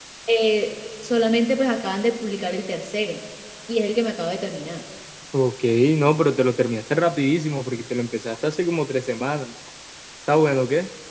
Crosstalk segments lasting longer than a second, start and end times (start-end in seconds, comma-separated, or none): none